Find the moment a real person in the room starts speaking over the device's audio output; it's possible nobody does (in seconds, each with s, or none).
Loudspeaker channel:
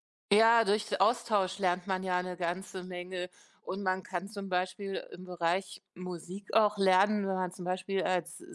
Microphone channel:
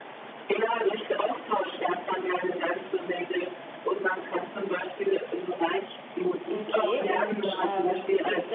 6.5 s